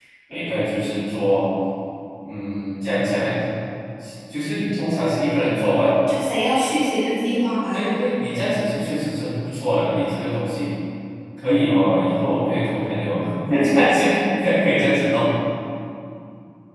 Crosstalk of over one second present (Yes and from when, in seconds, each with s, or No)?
No